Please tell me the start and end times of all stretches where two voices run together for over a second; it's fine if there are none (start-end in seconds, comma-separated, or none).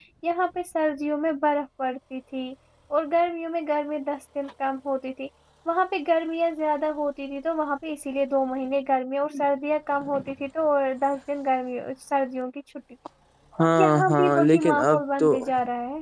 13.6-15.4